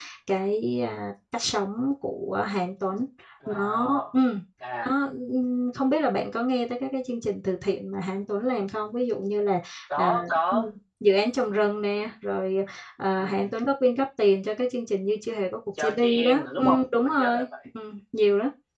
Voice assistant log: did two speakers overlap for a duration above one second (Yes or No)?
Yes